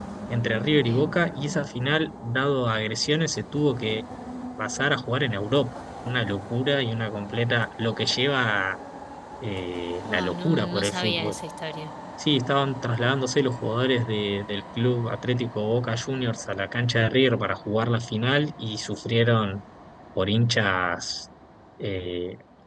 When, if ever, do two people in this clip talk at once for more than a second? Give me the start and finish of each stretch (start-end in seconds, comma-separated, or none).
10.0-11.3